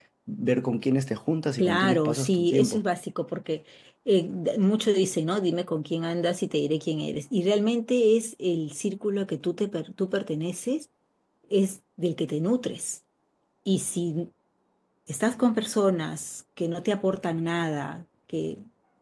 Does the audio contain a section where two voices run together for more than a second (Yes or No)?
Yes